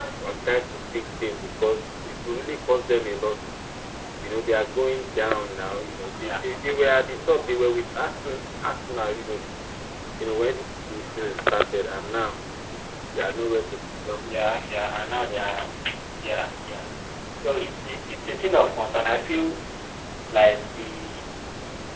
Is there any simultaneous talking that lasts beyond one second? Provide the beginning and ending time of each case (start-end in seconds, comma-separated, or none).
none